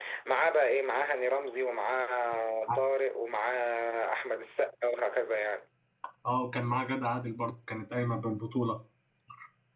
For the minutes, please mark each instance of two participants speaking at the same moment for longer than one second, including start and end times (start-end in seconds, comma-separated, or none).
none